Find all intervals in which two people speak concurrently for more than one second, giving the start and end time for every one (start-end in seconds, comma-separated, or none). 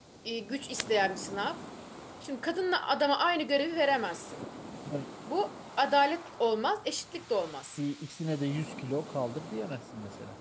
none